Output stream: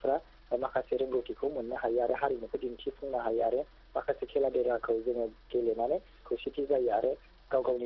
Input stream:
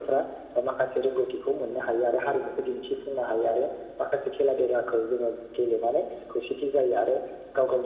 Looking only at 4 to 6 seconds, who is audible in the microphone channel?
echo only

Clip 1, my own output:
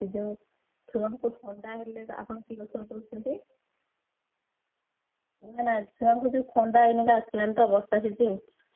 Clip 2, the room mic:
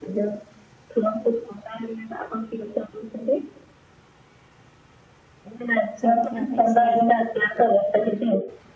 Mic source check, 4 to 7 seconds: both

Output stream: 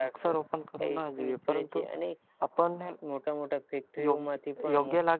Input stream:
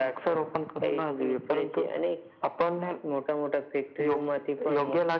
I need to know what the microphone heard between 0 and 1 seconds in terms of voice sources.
echo only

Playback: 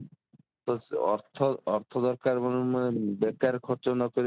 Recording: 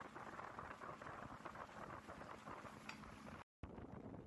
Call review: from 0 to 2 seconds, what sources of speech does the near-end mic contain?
neither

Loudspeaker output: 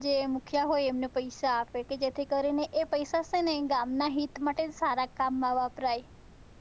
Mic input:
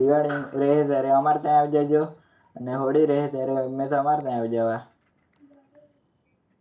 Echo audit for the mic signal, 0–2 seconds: user only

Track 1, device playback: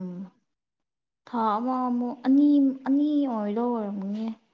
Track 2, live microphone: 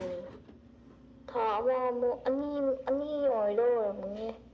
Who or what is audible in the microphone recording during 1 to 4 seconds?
echo only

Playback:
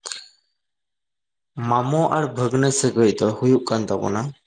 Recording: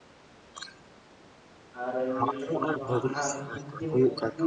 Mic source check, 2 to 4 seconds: both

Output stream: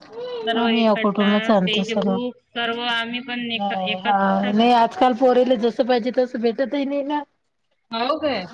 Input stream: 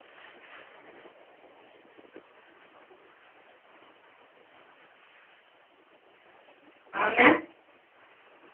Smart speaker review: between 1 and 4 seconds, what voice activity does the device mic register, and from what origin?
neither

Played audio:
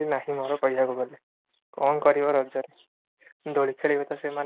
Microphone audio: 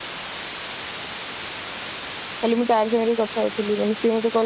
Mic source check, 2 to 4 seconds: user only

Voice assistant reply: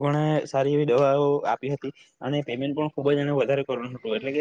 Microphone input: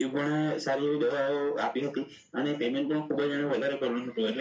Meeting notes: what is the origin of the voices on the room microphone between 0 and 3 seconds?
echo only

